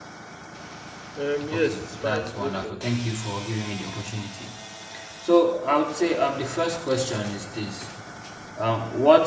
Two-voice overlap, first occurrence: 1.5 s

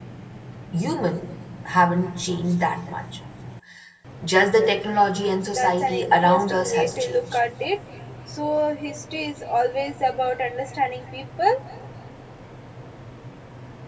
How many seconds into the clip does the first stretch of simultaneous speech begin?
5.4 s

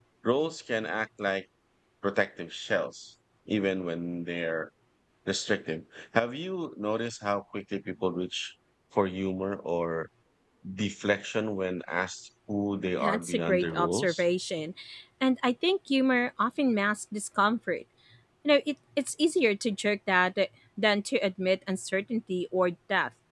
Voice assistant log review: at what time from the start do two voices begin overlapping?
13.0 s

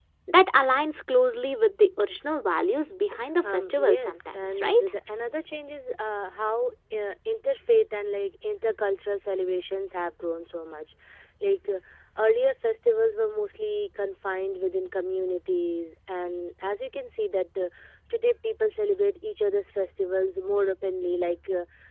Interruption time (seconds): 3.4 s

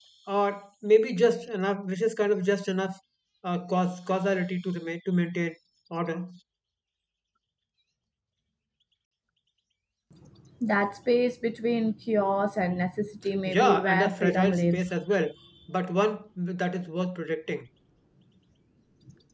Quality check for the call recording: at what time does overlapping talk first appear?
13.4 s

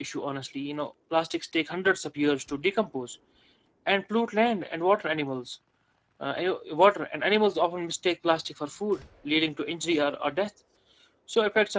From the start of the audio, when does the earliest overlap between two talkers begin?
none

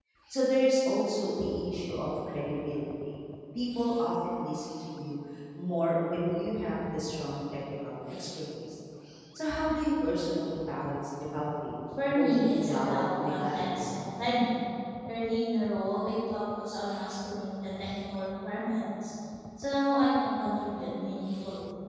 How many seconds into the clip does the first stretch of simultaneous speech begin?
12.1 s

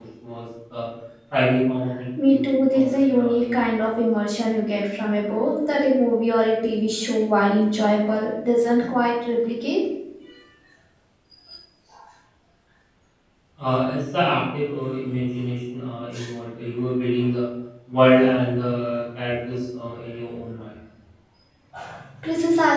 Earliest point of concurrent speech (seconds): 2.2 s

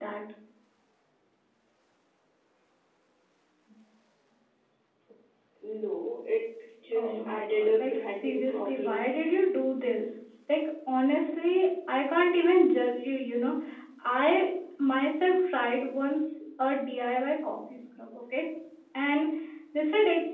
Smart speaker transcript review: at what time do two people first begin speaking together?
7.0 s

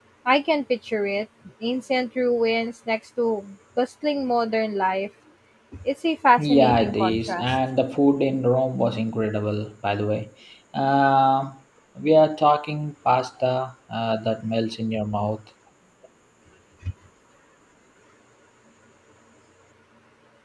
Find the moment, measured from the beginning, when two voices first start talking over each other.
6.4 s

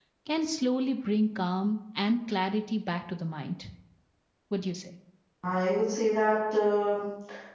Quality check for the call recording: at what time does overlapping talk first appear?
none

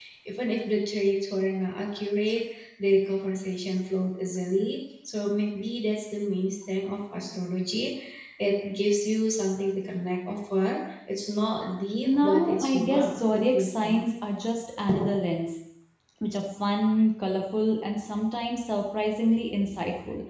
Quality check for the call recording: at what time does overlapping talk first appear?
12.0 s

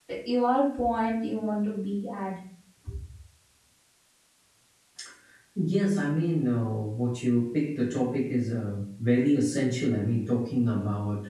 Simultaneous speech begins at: none

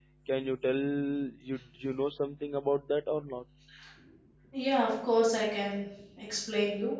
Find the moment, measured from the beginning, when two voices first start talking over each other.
none

